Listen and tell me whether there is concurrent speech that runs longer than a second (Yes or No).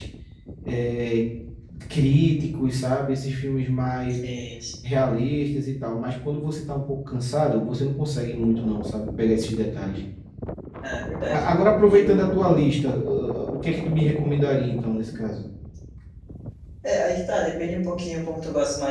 No